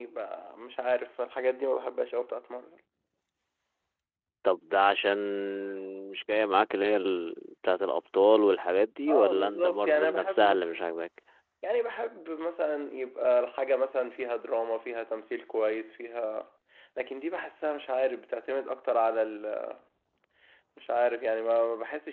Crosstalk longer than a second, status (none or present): present